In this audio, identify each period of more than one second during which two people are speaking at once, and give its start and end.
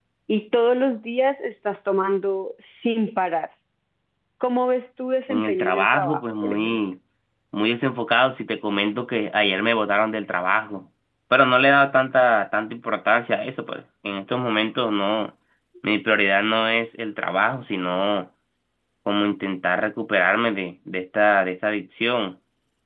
5.3-6.8

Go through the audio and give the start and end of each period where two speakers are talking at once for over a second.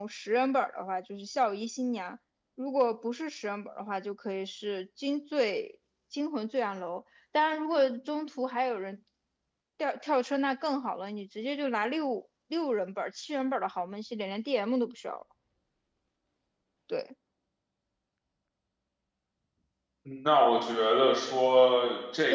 none

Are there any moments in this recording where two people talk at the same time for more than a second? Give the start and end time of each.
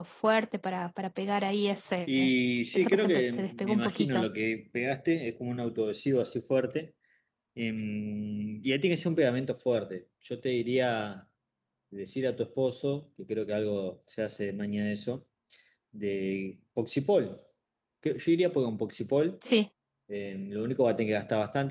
2.7-4.3

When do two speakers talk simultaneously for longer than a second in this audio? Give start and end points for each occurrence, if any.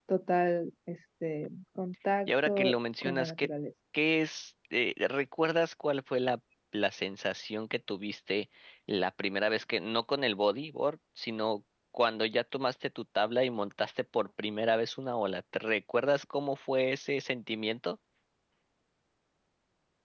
2.3-3.5

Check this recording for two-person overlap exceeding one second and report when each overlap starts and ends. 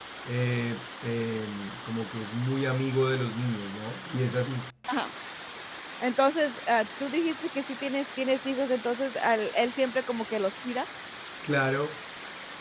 none

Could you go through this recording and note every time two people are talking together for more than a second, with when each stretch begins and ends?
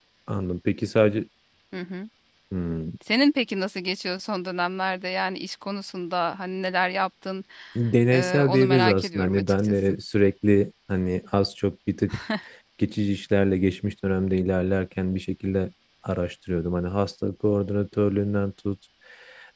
8.1-10.0

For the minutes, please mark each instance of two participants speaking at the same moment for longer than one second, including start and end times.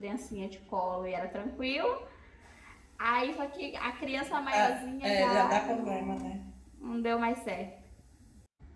4.5-6.3

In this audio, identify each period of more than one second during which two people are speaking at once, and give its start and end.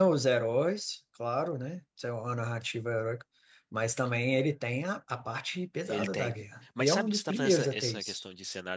6.8-8.2

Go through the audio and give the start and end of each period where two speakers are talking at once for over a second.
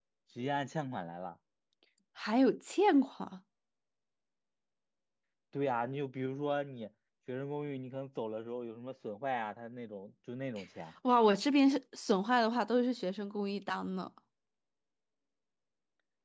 none

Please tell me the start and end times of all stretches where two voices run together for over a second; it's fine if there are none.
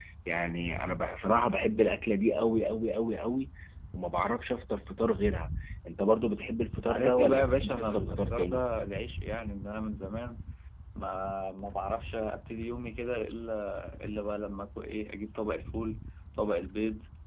6.8-8.6

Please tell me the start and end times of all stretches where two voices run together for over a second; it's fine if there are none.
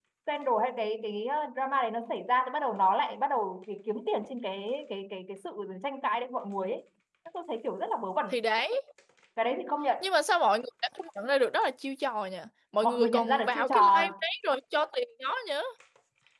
12.8-14.0

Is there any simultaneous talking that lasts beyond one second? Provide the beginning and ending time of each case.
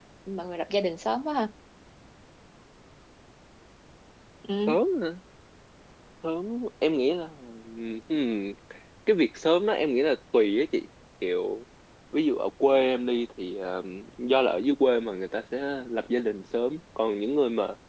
none

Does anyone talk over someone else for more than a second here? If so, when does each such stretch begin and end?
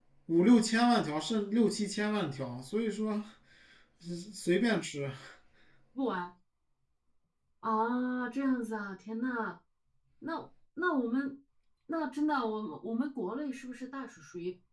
none

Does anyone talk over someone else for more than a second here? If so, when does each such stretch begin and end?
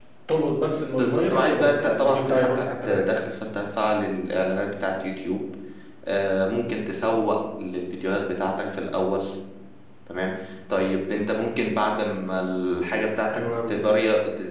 0.9-3.1

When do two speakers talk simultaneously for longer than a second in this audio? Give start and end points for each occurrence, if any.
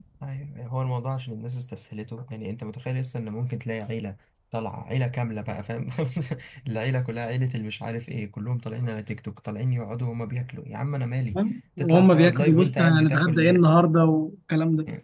11.8-13.6

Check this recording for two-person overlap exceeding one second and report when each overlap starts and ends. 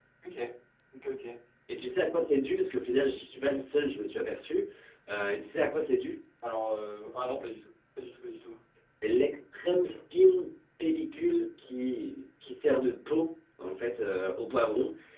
none

